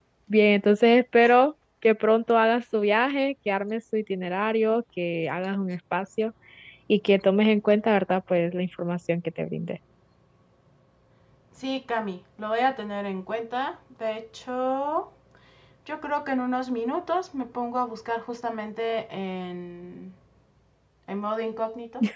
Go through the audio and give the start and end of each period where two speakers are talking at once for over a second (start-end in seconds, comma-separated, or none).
none